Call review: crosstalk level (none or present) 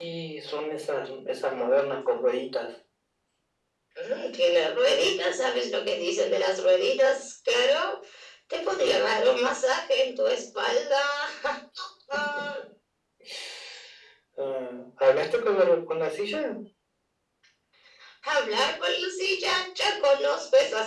none